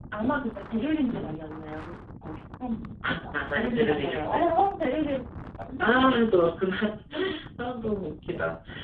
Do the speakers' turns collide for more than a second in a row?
Yes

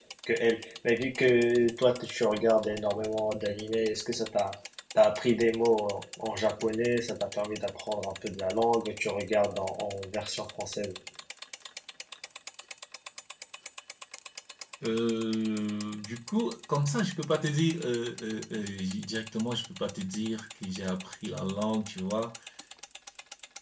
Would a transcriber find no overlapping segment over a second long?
Yes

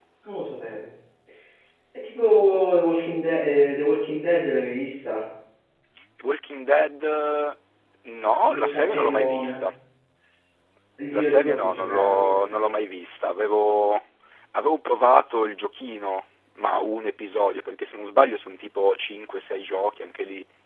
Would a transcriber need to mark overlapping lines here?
Yes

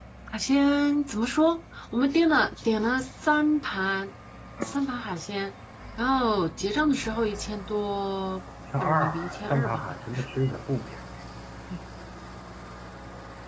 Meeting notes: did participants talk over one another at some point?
Yes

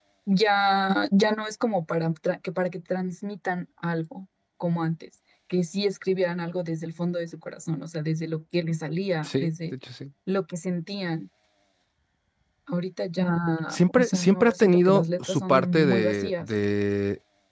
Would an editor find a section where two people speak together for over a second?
Yes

